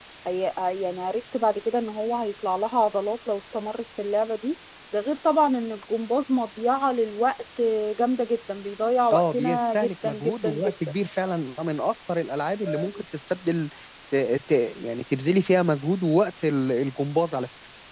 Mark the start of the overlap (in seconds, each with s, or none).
9.1 s